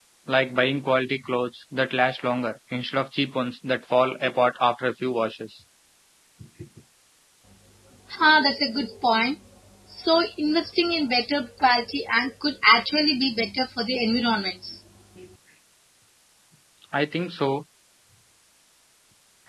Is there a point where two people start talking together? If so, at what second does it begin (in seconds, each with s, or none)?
none